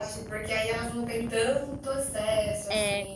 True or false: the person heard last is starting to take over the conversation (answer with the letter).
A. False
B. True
B